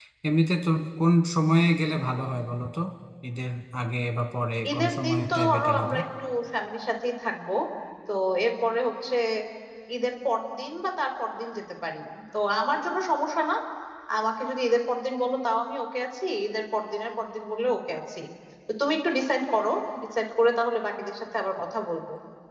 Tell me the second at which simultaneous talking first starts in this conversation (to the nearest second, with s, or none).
5 s